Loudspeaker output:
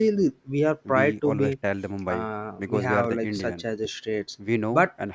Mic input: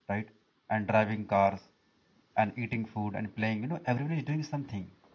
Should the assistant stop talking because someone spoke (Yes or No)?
Yes